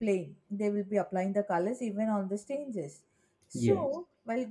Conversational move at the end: listening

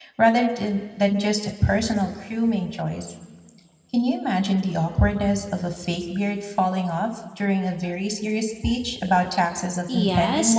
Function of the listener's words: taking over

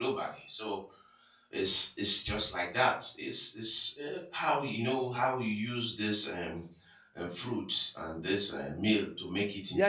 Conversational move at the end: taking over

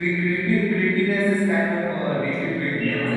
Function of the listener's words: taking over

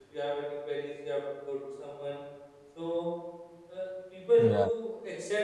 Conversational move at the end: listening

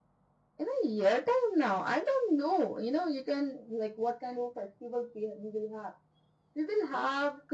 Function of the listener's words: listening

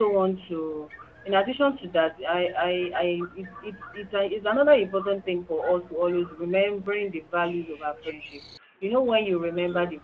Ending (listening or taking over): listening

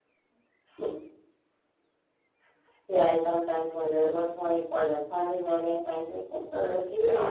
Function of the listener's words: taking over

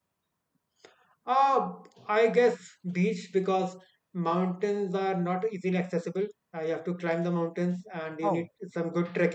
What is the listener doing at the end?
listening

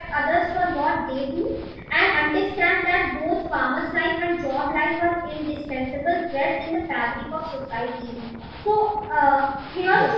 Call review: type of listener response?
listening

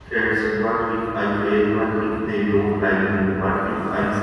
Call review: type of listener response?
listening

